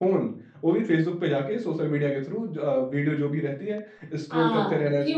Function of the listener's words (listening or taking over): taking over